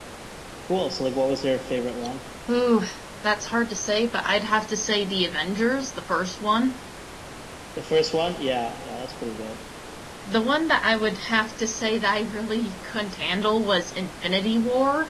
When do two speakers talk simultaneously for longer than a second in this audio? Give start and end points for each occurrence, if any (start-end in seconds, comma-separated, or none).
none